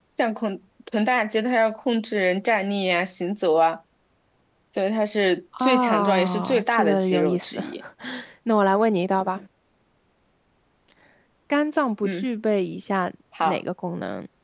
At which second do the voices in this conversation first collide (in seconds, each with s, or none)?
5.6 s